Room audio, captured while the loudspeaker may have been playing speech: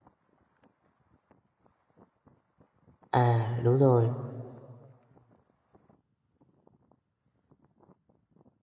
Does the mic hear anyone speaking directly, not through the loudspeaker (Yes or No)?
Yes